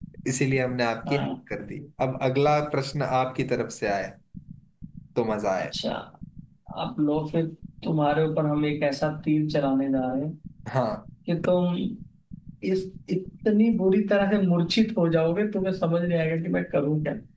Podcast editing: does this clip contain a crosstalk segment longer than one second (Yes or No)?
No